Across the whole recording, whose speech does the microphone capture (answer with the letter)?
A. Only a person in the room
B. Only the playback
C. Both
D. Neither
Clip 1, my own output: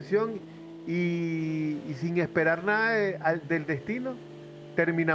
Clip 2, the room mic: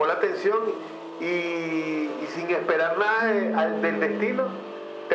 C